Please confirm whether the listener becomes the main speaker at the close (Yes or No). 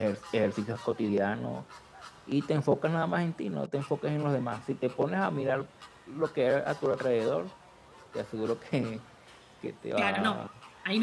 Yes